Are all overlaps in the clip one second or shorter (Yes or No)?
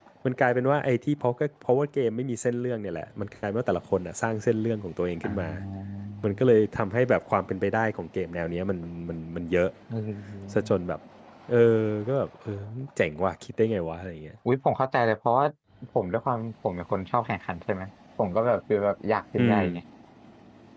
Yes